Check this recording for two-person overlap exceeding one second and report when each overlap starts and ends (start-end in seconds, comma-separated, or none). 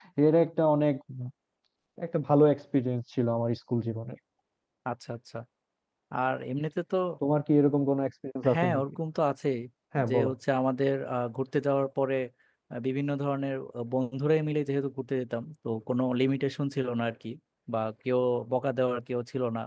none